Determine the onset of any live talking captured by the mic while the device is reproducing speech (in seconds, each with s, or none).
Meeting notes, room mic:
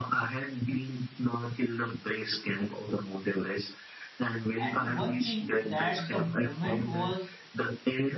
4.6 s